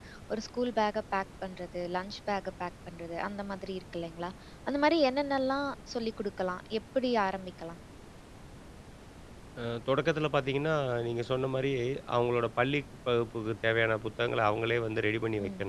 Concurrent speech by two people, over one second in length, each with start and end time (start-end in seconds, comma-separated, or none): none